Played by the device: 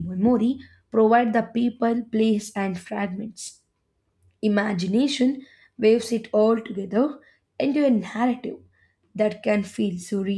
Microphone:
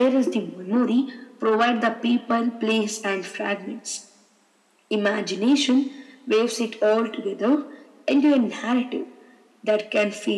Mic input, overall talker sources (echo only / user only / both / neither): echo only